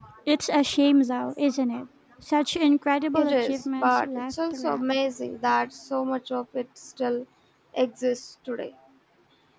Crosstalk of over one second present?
Yes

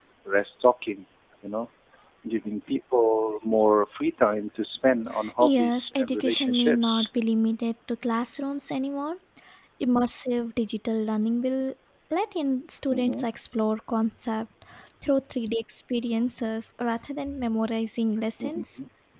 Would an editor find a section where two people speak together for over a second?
Yes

